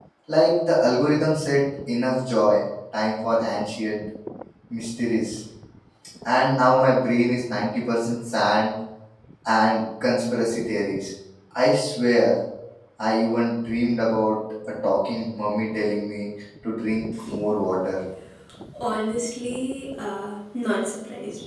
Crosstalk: none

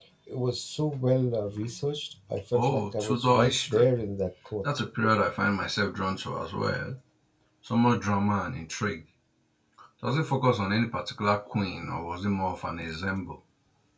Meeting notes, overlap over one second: present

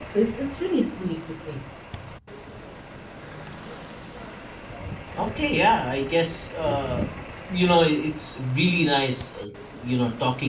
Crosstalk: none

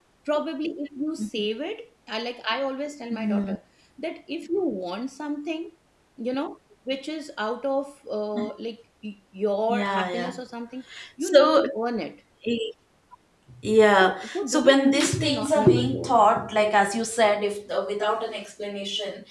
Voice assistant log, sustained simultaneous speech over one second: present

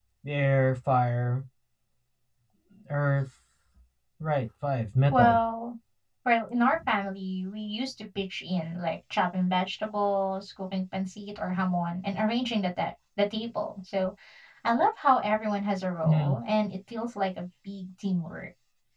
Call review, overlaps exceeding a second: none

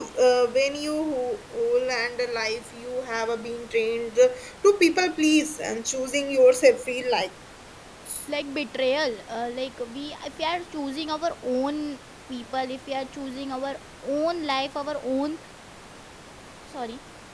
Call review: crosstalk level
none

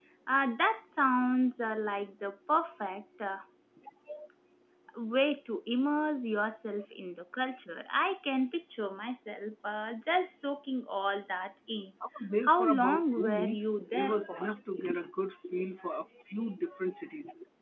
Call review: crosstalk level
present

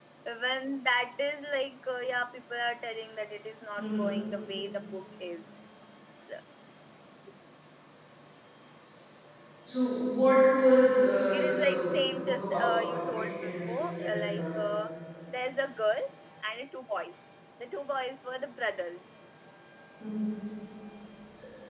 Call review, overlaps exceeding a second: present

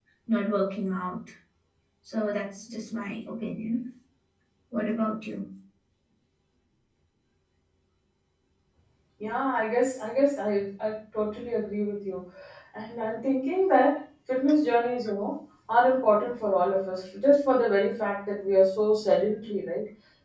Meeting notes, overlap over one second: none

